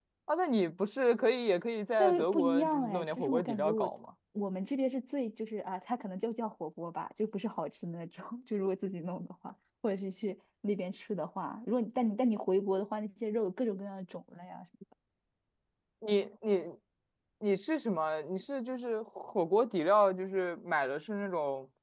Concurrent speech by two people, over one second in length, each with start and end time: 2.0-3.9

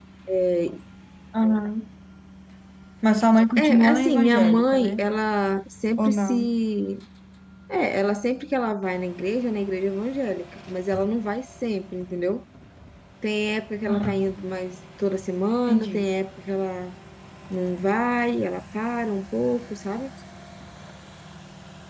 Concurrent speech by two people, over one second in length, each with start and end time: 3.6-5.0

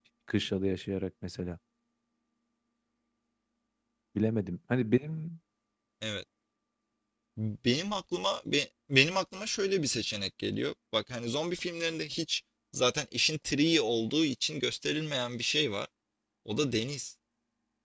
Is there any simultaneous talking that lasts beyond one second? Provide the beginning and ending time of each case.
none

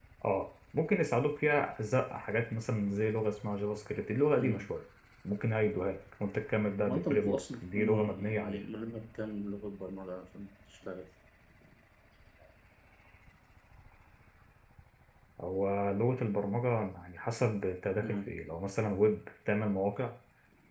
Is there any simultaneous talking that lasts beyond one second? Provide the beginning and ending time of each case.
6.9-8.6

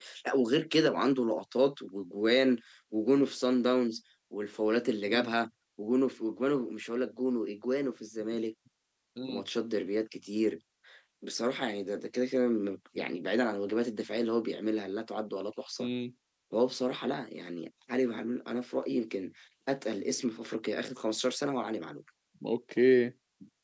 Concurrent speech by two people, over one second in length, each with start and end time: none

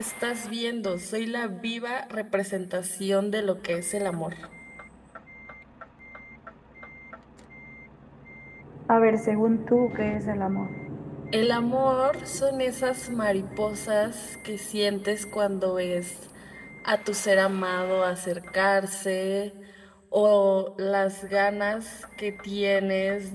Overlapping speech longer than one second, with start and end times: none

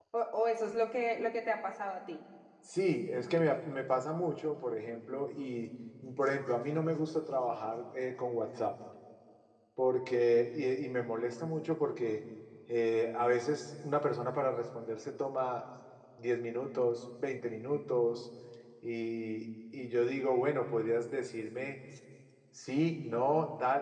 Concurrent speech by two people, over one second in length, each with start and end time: none

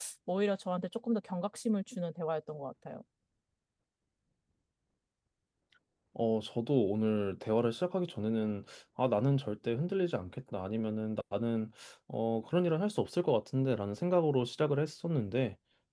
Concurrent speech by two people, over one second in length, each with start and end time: none

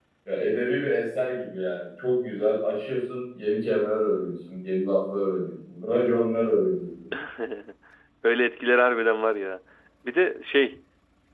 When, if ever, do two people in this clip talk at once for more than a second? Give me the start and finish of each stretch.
none

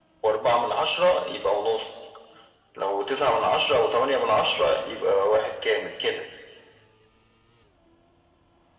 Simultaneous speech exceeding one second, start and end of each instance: none

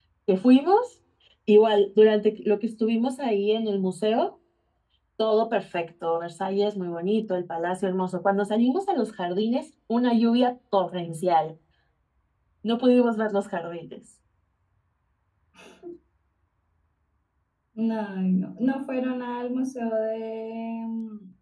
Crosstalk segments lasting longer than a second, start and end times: none

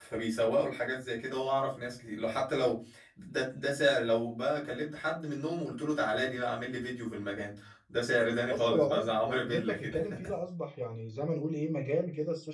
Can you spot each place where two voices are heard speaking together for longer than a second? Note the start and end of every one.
8.5-10.0

